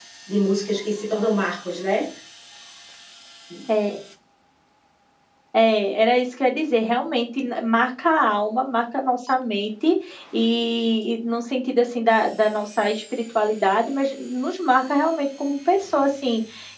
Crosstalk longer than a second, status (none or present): none